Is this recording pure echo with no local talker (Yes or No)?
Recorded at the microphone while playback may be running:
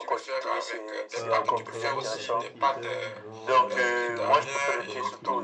No